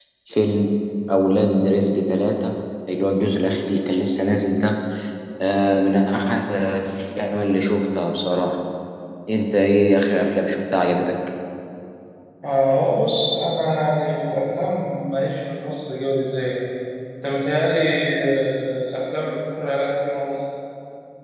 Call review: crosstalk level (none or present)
none